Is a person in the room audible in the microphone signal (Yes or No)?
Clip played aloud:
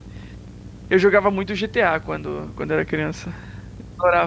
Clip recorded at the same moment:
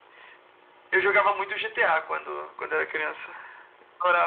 No